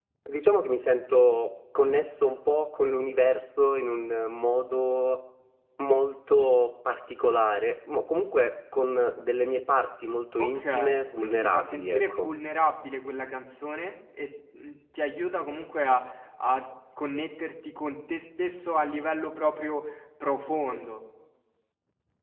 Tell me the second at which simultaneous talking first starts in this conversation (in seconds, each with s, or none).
10.4 s